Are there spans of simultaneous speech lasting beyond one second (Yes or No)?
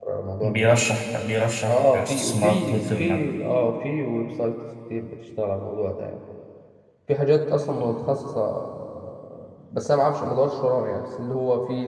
Yes